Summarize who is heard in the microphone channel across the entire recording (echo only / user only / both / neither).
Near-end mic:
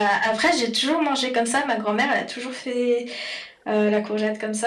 echo only